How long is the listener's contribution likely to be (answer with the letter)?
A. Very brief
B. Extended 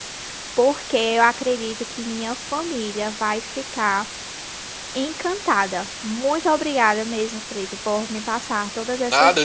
B